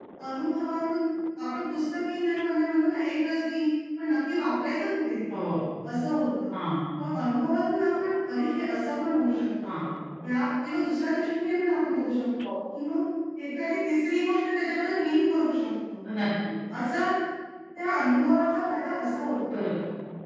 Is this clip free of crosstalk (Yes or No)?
Yes